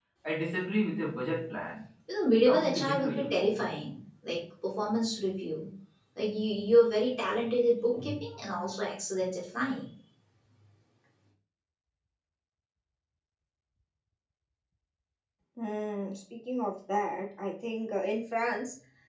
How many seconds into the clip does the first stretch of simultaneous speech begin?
2.5 s

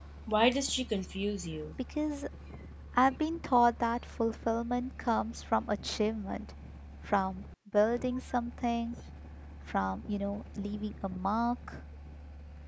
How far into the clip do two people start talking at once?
none

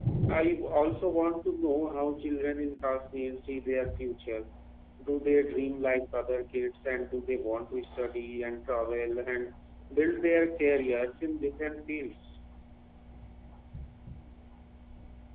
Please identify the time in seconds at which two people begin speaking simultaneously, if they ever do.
none

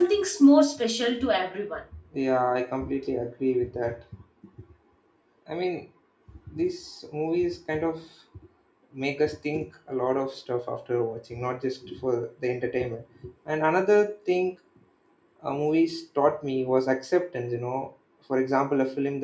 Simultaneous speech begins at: none

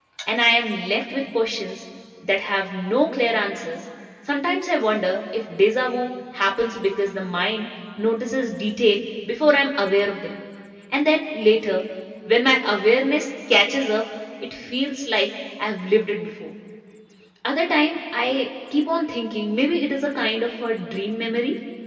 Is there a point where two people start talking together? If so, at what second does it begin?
none

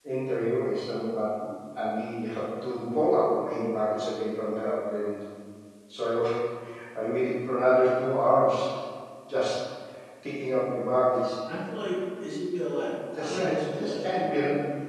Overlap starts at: 13.1 s

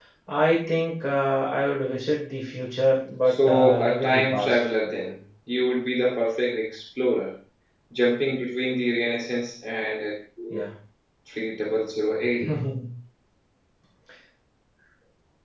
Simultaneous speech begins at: 3.3 s

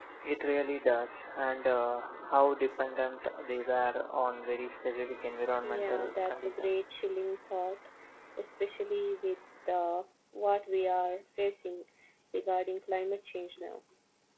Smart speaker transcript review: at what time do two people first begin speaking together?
5.6 s

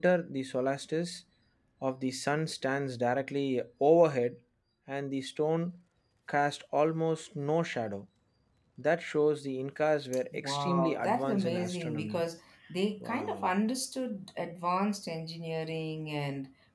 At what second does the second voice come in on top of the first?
10.3 s

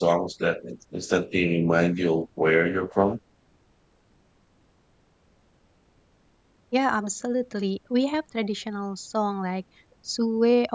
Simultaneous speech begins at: none

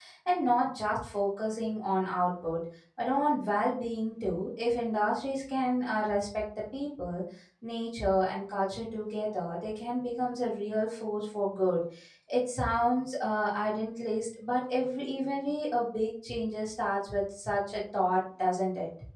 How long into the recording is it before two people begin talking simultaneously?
none

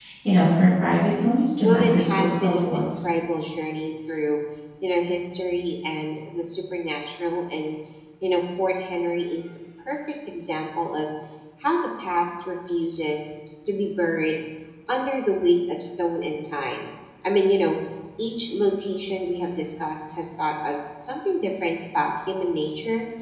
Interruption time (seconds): 1.6 s

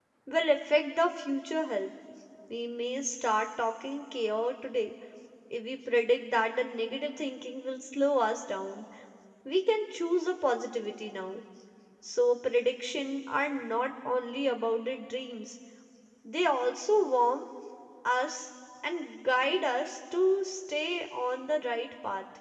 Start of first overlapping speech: none

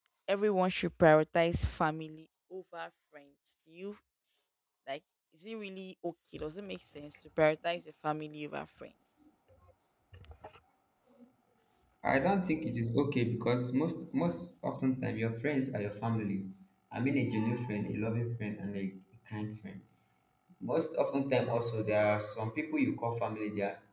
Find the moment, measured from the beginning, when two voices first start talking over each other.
none

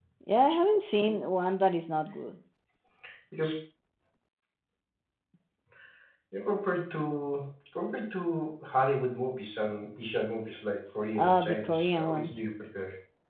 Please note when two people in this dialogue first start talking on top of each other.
11.2 s

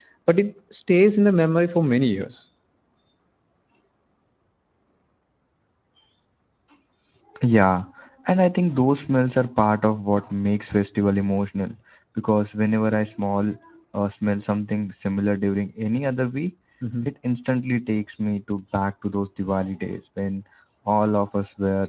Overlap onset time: none

